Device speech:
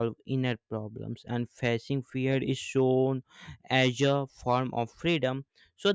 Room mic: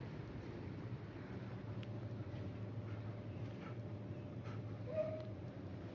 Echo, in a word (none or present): none